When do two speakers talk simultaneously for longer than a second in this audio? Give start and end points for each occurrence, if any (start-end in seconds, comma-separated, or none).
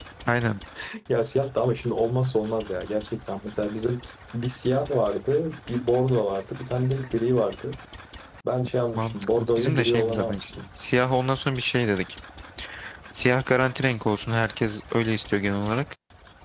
9.0-10.4